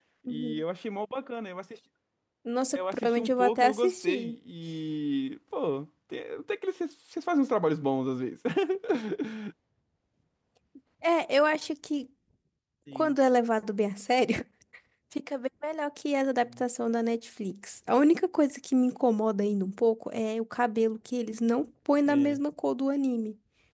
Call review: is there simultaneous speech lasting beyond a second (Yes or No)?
Yes